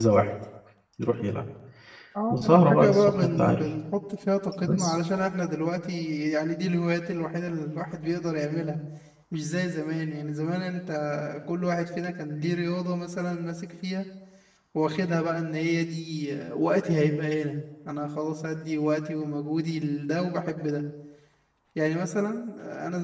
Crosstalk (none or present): present